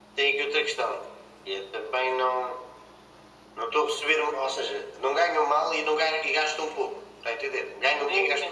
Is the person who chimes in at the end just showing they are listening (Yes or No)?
No